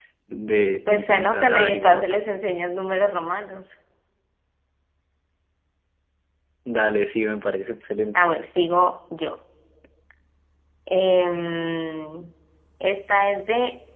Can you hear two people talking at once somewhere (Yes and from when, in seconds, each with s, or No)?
Yes, from 0.9 s